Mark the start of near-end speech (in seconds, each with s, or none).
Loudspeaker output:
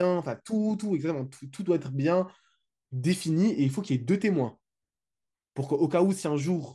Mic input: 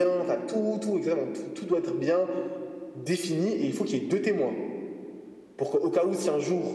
none